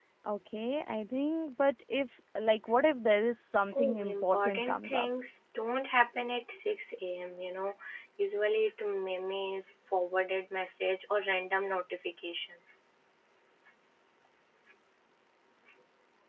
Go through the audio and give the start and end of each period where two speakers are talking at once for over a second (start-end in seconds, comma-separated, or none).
3.7-5.1